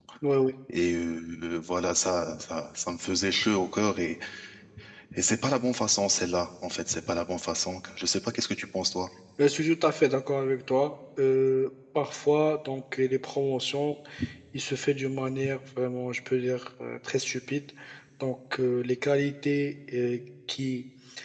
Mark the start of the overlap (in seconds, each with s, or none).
none